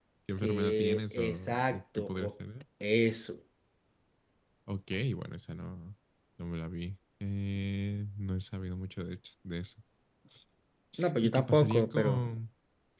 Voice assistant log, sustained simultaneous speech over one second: present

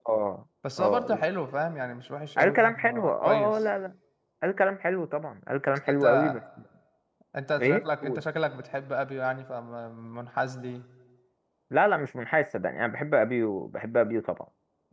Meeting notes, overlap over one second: present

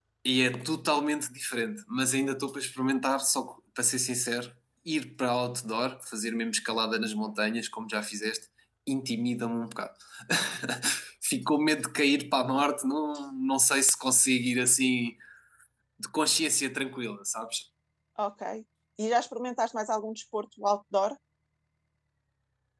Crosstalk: none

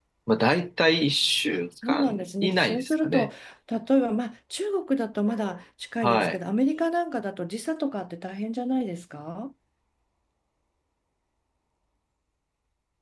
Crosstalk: present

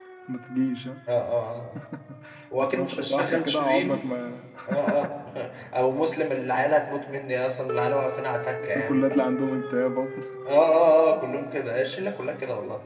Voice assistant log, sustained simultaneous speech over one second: present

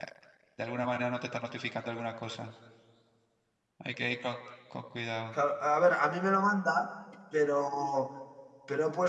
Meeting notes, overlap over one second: none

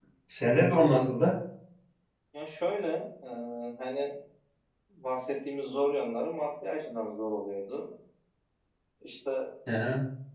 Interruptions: none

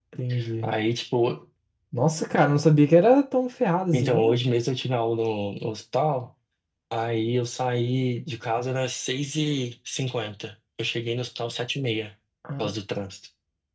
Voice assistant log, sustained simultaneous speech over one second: none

